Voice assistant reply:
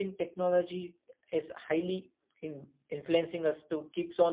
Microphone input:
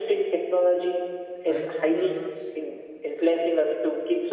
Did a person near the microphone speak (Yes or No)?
Yes